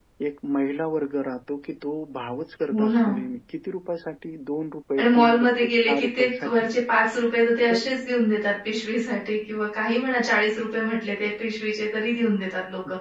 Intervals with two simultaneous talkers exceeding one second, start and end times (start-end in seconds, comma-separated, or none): 5.0-6.7